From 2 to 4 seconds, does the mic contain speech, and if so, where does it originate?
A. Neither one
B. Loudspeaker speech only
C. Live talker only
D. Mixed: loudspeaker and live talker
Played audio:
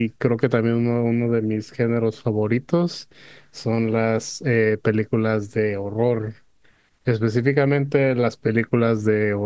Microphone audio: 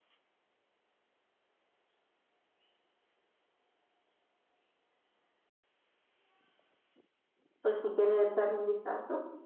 A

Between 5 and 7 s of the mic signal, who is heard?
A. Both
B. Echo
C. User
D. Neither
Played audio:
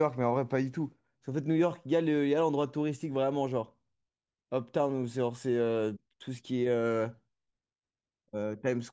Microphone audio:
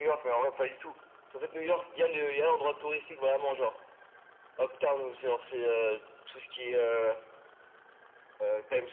B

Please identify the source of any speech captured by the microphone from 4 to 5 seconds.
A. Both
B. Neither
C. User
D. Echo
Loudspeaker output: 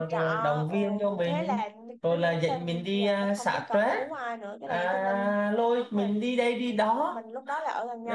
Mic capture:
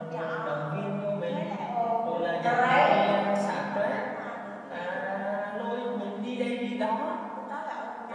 D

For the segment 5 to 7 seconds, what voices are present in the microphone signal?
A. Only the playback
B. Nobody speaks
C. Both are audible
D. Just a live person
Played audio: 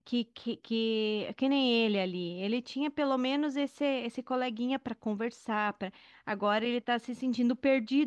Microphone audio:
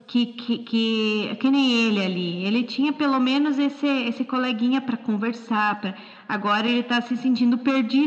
A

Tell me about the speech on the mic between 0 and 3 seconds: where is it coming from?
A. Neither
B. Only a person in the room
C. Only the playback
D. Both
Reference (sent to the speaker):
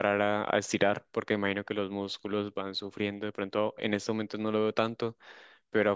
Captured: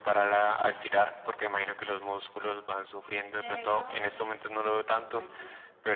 C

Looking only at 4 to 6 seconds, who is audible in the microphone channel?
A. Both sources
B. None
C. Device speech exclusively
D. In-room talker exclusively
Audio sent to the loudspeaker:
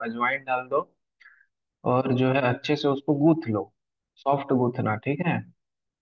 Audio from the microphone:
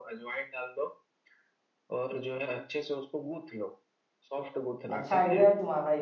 A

